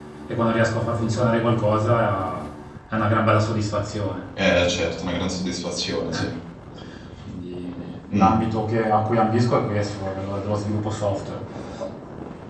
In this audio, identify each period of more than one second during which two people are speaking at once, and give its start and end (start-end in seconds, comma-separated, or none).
none